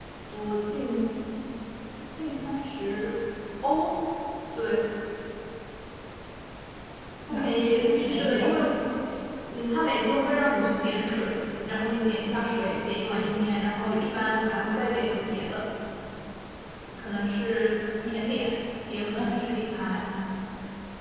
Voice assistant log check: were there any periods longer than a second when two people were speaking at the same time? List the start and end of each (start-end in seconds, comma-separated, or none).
7.3-8.5